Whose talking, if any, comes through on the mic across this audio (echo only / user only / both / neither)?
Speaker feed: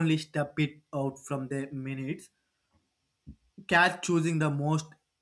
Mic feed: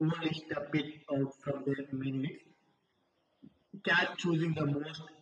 echo only